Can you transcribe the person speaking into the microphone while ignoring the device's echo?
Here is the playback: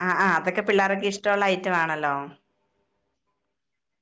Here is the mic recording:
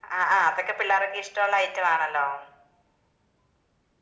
none

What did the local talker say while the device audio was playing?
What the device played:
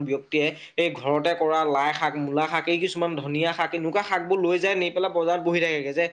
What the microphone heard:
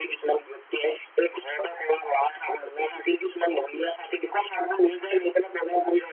none

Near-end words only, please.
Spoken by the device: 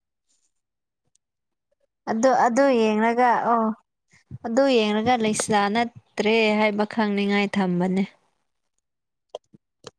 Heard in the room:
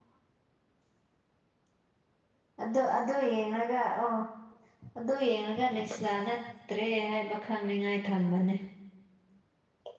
none

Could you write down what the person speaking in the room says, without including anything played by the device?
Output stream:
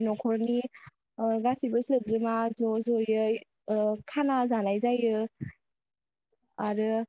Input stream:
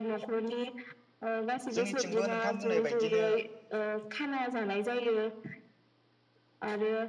जोंनिथिंबो नोंथां बुंनाय बायदिनो

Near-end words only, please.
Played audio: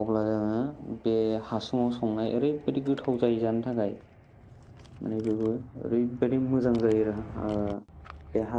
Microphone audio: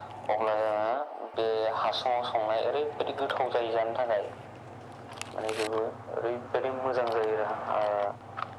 none

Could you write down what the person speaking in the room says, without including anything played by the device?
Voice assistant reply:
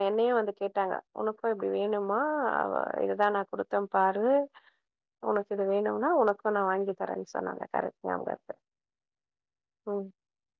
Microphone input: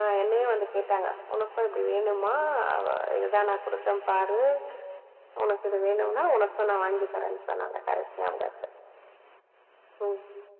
none

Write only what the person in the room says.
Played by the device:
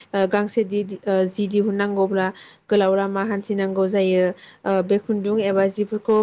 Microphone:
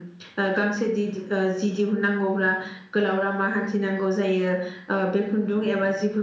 none

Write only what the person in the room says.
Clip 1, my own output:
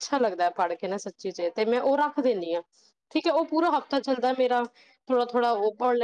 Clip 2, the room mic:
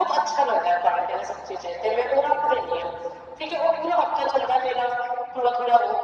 none

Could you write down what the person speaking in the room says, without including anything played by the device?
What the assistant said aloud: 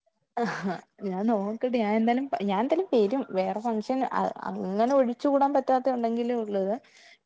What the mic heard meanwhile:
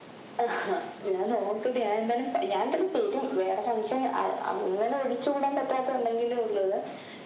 none

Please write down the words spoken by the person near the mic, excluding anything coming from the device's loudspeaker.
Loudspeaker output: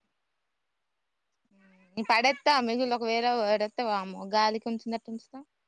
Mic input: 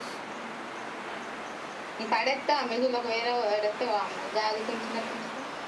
none

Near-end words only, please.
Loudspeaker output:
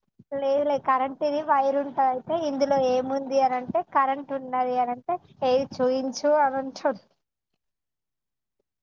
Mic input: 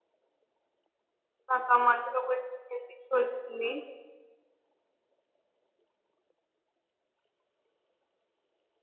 నాకామందిలో వొయ్ పెద్దిష్యు

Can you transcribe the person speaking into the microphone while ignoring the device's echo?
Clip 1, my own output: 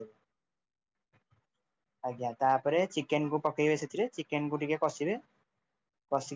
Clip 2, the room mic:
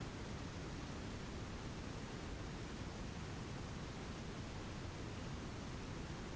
none

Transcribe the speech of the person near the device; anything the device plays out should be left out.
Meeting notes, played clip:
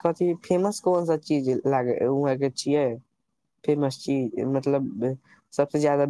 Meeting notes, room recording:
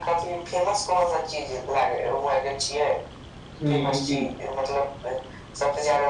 हुँ।

